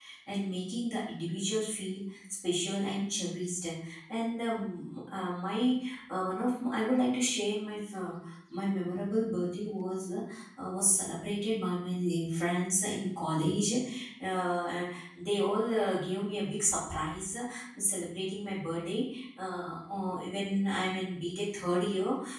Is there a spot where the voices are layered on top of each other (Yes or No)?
No